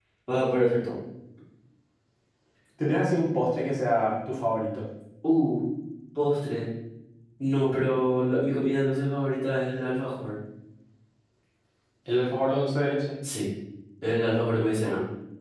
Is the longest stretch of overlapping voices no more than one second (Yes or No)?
Yes